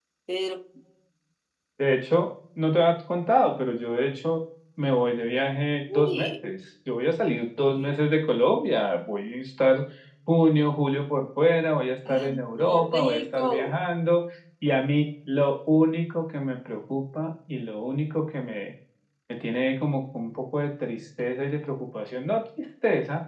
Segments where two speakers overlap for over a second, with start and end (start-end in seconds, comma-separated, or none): 12.1-13.7